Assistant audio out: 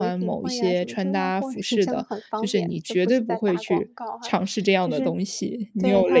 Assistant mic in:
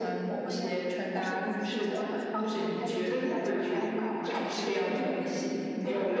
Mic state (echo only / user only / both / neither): both